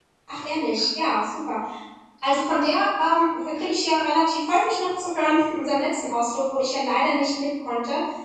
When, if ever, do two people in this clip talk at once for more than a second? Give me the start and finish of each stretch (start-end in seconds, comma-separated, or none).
none